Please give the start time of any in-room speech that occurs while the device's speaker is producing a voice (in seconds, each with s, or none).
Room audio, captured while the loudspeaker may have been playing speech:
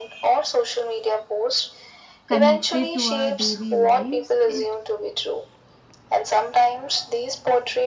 2.3 s